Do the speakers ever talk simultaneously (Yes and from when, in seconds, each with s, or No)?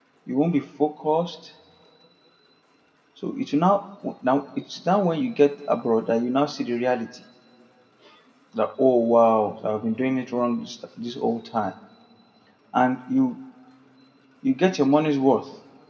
No